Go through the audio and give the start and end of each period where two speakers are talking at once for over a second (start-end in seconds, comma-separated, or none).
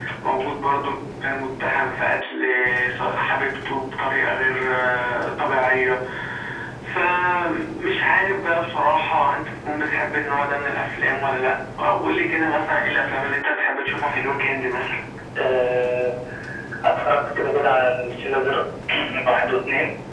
none